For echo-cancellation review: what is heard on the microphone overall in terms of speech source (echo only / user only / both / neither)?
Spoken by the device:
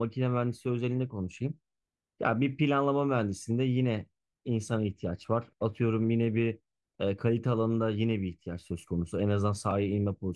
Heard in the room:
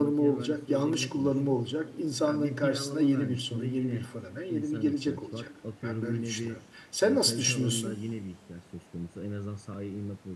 both